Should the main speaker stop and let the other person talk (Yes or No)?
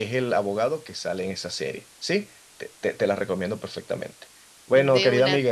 No